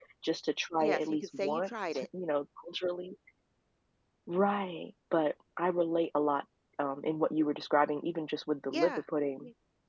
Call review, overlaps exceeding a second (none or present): present